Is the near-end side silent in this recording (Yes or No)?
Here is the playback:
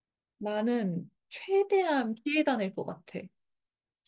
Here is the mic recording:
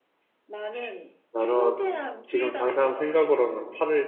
No